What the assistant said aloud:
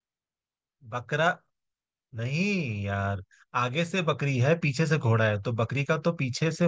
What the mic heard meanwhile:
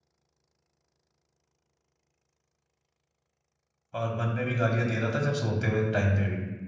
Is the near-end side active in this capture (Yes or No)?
Yes